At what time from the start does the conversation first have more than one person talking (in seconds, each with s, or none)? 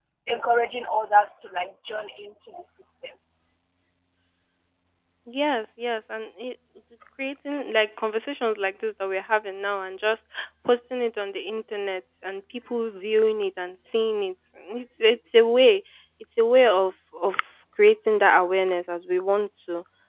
none